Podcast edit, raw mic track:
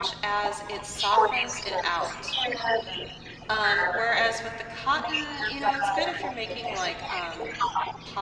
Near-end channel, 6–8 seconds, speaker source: both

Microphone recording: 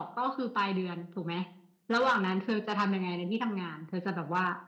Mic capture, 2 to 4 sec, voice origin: echo only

